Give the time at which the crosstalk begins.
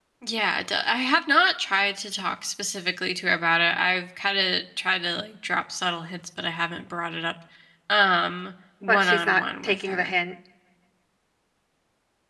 9 s

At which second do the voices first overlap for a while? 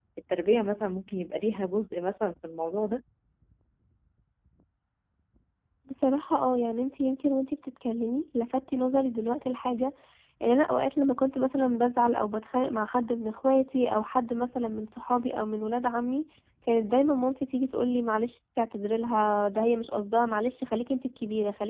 none

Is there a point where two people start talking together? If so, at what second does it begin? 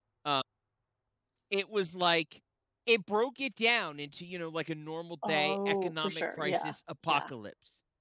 5 s

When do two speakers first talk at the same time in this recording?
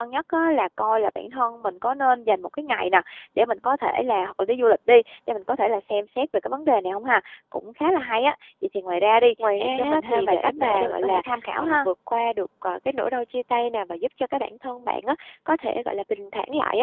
9 s

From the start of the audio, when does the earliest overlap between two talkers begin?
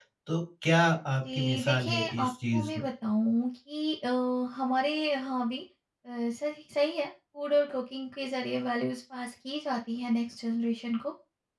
1 s

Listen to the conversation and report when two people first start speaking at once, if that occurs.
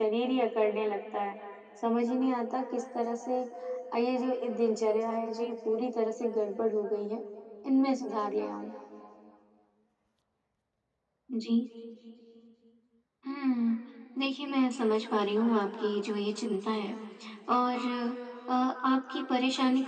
none

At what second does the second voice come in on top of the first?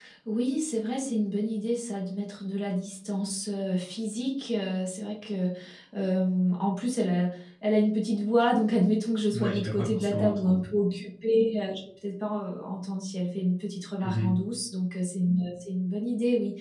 9 s

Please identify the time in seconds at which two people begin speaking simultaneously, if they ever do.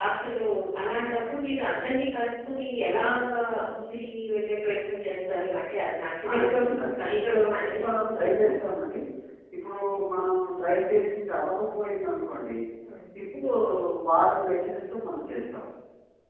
6 s

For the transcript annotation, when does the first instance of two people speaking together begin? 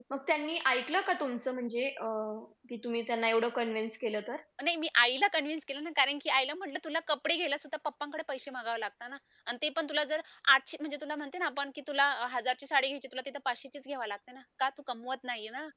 none

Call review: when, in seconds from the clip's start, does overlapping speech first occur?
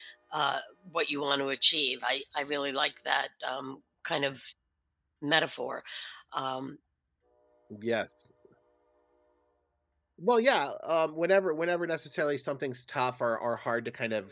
none

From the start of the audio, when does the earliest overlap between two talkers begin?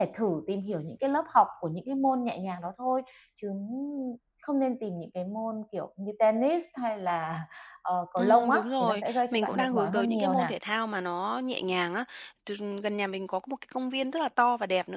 8 s

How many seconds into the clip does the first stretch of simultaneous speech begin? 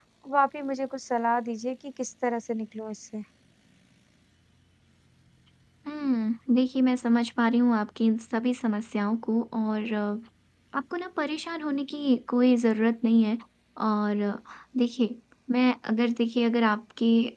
none

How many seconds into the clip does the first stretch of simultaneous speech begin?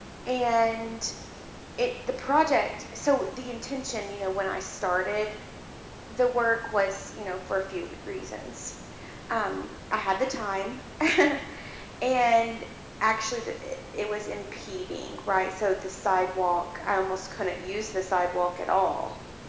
none

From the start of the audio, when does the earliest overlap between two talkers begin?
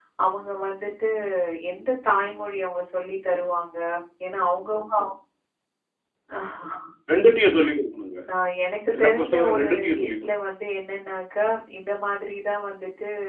9 s

